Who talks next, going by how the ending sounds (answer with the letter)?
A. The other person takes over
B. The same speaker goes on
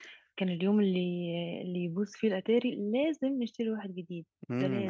A